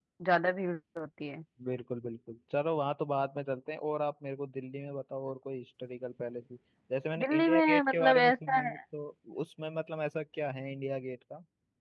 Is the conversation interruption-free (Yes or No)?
No